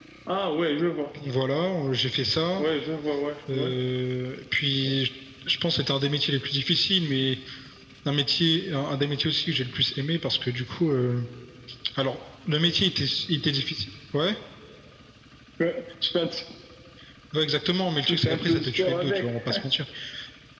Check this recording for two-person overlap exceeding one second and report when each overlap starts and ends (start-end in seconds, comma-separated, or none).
18.1-19.3